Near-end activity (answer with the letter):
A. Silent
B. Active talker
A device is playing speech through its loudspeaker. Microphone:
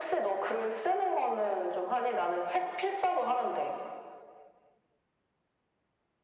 A